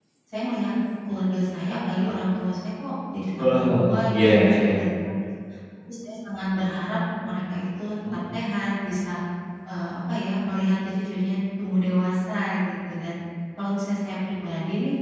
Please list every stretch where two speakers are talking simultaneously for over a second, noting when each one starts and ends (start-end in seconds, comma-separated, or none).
3.4-4.8